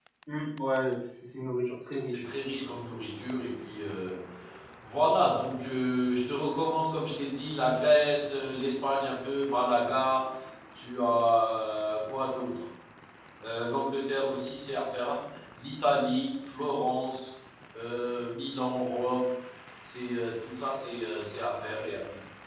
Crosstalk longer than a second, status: none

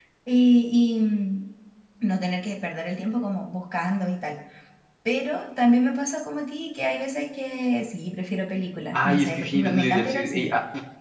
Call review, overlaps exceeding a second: present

